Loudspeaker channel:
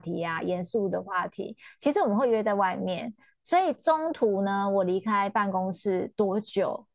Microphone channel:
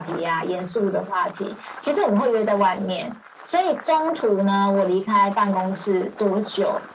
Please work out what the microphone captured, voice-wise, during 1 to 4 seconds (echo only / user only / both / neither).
echo only